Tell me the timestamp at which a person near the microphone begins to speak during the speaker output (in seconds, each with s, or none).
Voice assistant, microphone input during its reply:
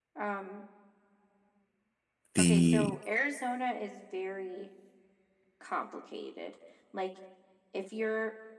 2.4 s